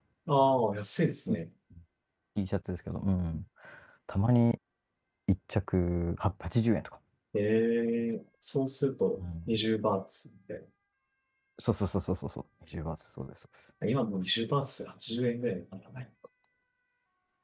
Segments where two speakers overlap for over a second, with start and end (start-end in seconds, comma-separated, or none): none